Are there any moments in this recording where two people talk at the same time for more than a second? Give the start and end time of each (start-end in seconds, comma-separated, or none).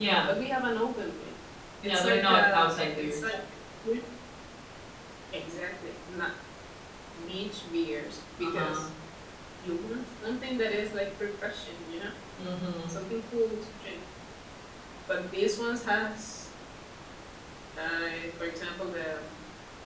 1.8-3.3